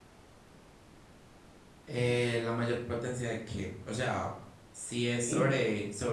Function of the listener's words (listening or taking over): listening